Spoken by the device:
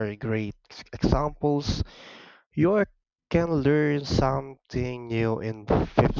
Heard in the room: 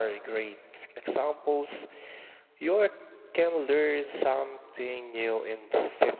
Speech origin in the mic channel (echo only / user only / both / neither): echo only